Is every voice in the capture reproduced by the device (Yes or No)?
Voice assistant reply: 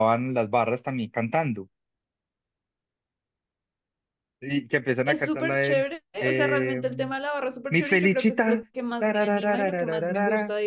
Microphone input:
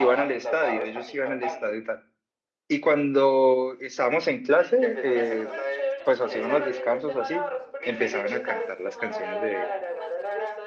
No